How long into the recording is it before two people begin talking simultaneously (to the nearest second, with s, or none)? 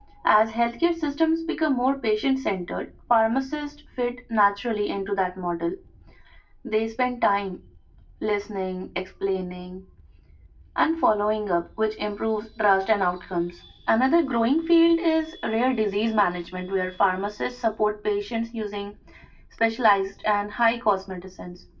none